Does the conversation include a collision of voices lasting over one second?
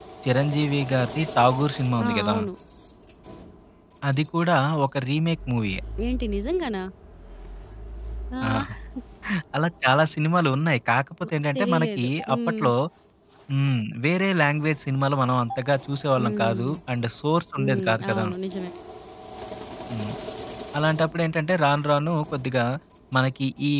Yes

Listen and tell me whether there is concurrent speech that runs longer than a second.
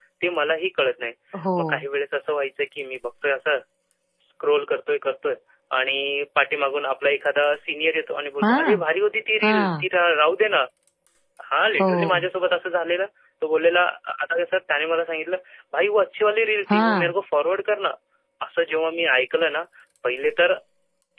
No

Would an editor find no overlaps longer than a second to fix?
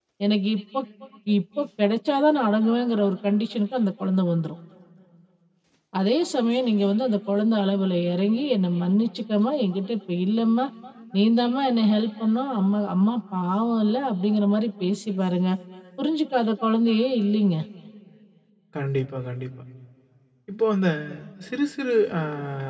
Yes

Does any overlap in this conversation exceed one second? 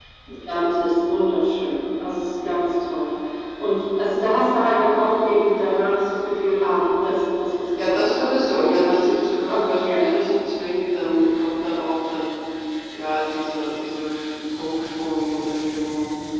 Yes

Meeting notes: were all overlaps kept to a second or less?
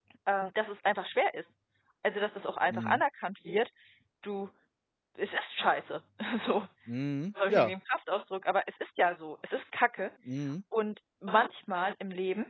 Yes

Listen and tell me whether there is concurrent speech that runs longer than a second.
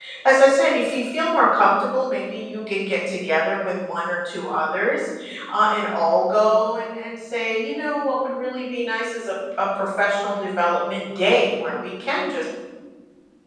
No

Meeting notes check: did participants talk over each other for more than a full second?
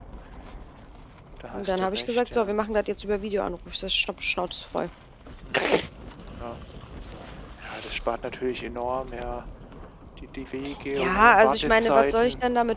Yes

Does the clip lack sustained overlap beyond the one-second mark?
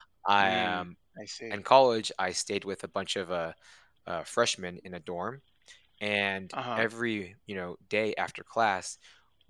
Yes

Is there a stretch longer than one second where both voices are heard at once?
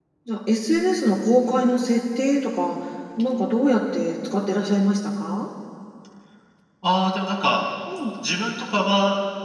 No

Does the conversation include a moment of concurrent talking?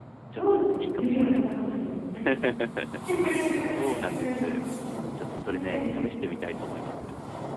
Yes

